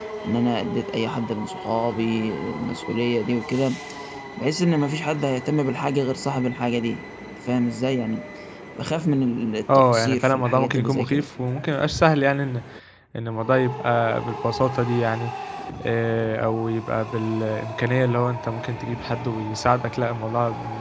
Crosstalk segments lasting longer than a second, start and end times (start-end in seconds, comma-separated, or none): 9.9-11.3